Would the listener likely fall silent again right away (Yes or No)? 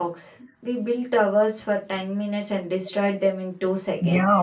No